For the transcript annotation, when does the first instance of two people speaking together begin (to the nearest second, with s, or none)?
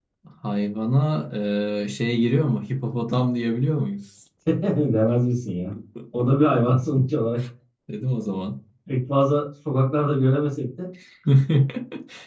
none